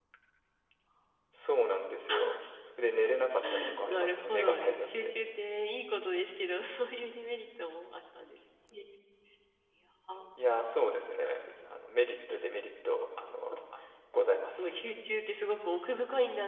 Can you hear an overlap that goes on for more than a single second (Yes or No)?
Yes